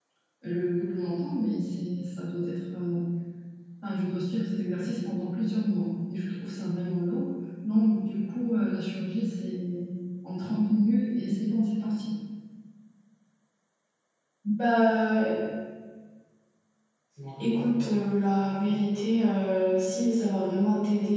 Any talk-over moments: No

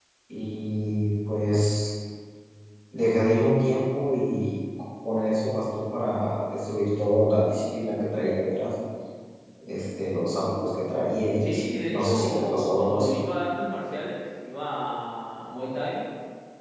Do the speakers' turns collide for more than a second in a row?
Yes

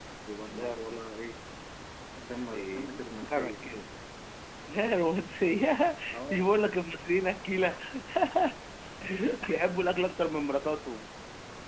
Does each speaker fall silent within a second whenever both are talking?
No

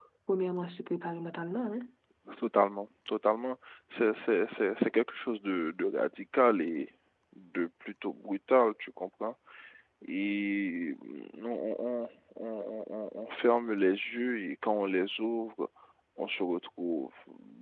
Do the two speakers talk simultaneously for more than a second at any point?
No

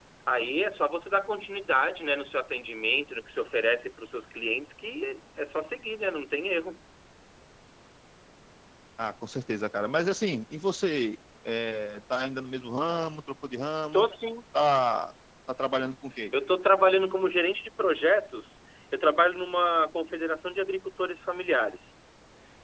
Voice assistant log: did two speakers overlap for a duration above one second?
No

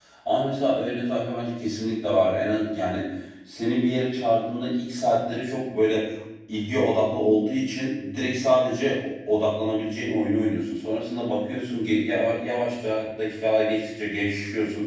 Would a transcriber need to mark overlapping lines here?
No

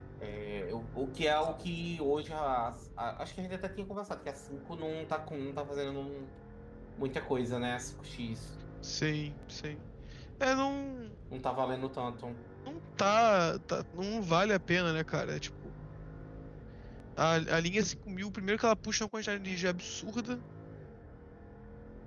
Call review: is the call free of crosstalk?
Yes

